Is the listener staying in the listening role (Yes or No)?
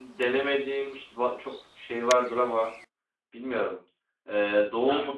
Yes